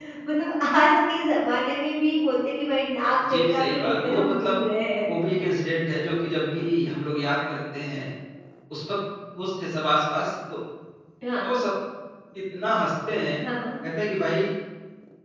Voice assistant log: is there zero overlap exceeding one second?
No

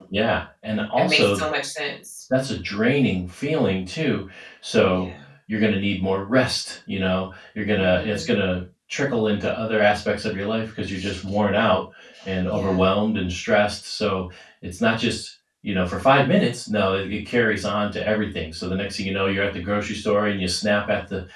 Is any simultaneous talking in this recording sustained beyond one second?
No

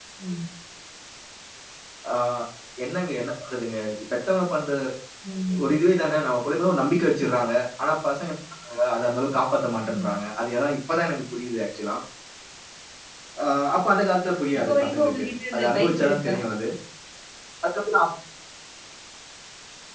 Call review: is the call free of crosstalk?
No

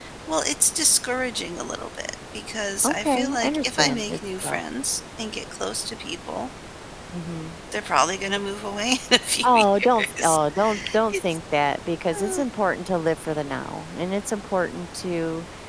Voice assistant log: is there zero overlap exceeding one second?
No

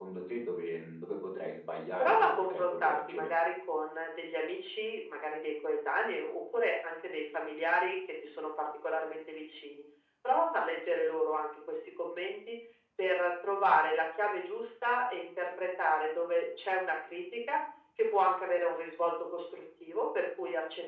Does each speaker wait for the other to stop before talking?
No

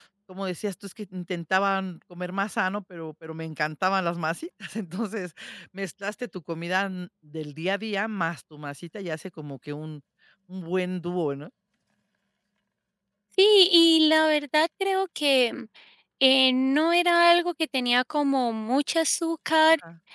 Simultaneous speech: No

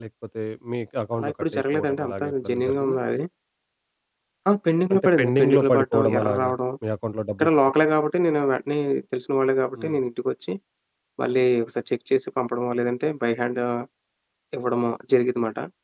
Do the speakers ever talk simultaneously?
Yes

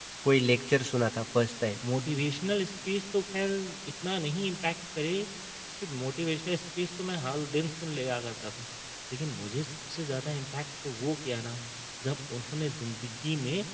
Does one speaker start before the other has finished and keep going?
No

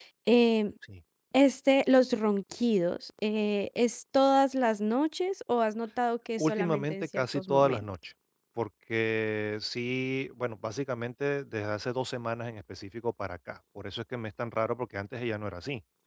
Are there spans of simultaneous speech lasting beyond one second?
Yes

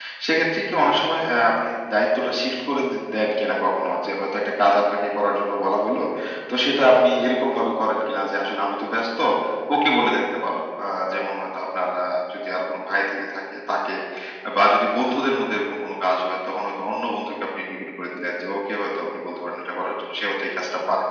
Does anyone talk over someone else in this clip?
No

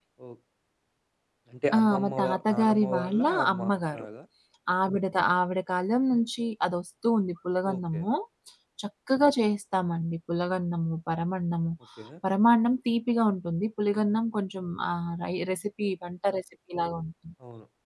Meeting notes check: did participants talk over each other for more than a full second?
Yes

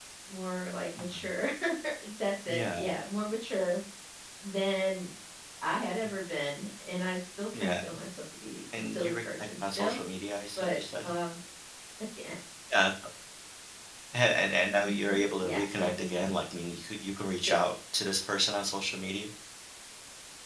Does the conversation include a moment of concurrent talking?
Yes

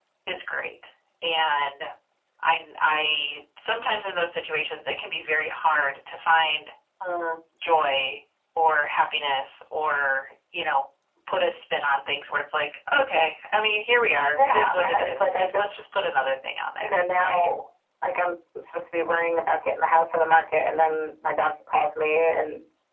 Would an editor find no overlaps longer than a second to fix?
No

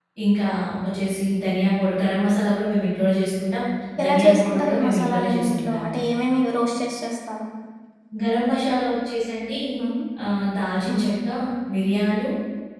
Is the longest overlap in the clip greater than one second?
Yes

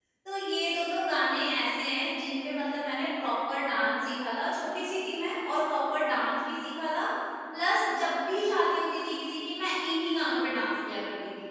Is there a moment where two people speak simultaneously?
No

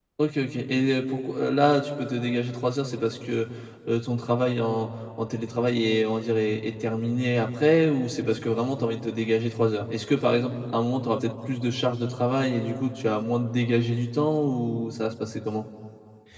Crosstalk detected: No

